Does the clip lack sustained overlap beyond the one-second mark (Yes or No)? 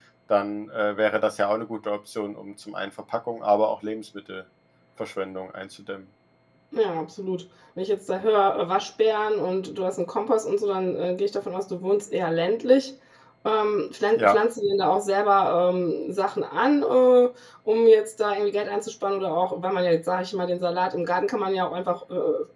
Yes